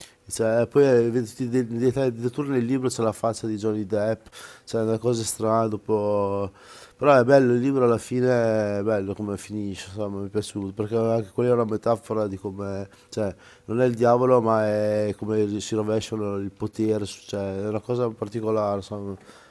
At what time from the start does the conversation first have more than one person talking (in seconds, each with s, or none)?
none